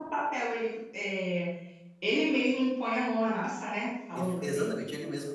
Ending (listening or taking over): taking over